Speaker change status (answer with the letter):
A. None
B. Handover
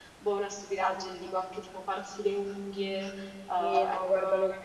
B